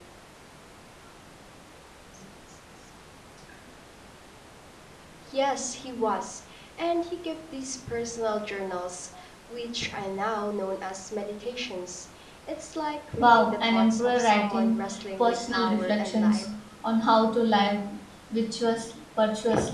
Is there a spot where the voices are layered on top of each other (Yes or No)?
Yes